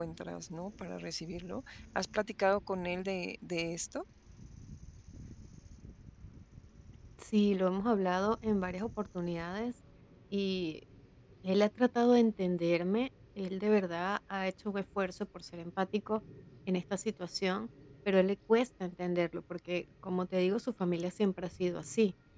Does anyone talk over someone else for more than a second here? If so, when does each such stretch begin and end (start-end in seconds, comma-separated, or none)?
none